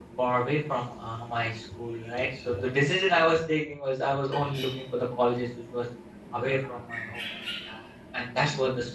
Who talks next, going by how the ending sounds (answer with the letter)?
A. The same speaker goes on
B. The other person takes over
B